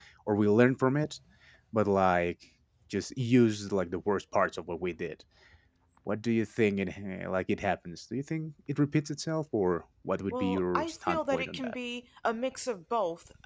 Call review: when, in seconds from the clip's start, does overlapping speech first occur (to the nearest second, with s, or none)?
10 s